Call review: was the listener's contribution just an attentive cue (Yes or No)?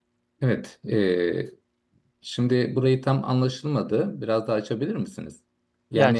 No